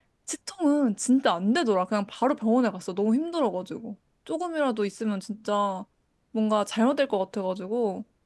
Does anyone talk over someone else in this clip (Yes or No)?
No